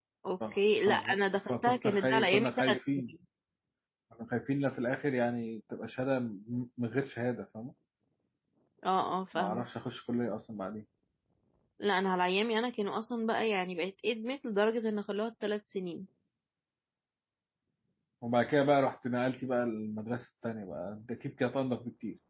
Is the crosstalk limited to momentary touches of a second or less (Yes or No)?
No